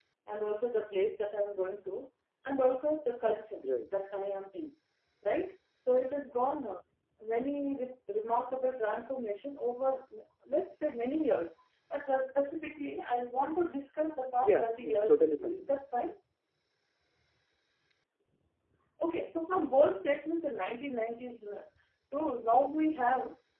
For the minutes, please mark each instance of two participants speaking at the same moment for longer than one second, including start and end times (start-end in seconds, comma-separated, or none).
14.4-15.7